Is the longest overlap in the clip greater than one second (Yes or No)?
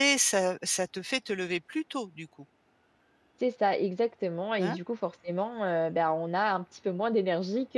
No